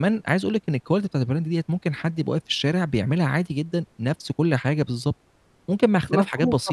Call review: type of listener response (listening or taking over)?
taking over